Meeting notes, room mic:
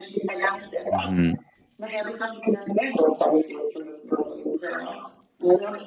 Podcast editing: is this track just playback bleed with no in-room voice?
No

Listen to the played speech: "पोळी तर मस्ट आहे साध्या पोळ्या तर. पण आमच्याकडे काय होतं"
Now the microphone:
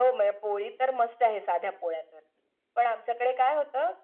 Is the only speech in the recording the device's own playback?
Yes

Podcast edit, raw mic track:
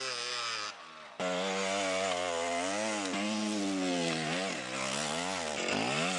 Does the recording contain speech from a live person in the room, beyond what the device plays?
No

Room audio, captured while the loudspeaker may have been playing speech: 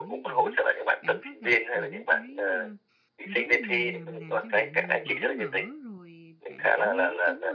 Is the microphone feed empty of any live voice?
No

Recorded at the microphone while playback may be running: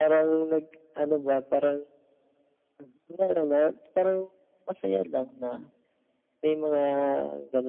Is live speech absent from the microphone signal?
Yes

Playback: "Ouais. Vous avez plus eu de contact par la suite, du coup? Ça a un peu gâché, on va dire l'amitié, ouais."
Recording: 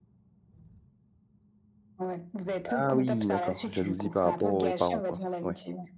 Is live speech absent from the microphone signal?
No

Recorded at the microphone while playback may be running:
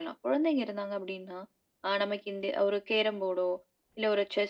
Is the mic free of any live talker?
Yes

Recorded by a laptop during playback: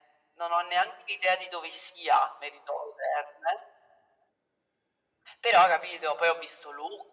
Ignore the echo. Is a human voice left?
No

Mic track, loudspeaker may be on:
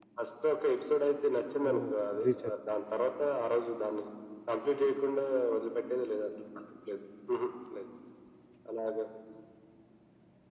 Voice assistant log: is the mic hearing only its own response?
No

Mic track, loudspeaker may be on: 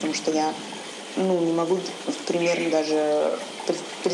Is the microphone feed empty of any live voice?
Yes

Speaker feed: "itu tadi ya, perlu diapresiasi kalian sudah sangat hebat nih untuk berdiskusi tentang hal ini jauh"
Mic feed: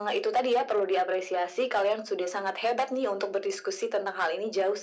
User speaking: No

